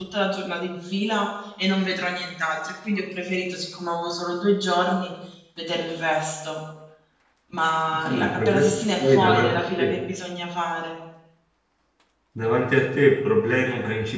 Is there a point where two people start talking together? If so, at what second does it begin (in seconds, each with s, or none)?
8.0 s